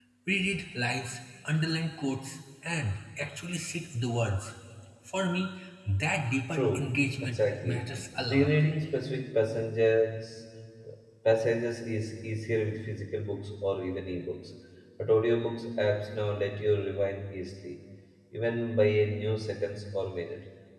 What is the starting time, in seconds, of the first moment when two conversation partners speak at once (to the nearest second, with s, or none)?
7 s